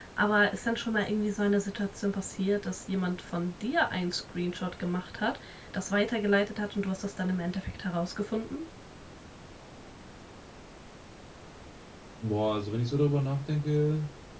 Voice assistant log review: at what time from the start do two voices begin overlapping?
none

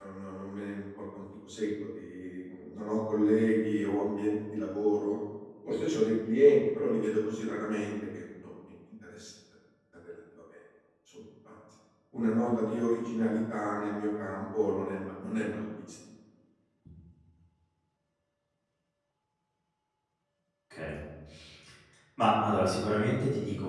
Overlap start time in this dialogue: none

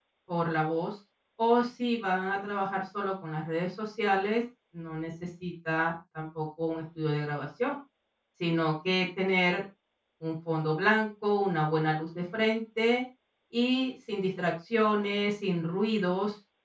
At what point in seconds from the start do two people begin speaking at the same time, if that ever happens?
none

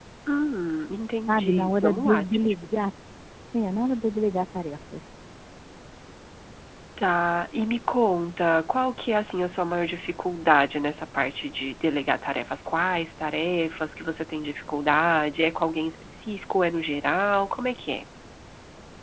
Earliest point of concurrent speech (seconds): 1.3 s

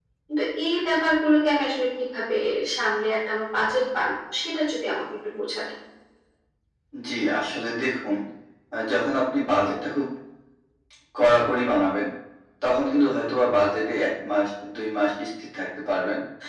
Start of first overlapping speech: none

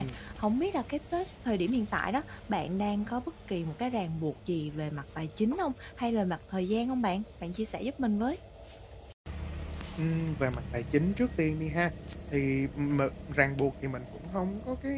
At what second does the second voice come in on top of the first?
none

